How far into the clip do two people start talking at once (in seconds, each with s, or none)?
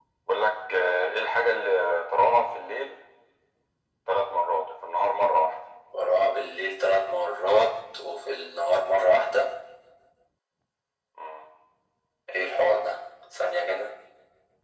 none